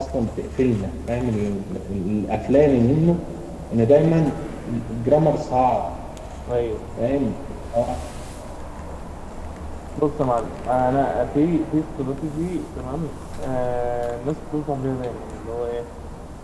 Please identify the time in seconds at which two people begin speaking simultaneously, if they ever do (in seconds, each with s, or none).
none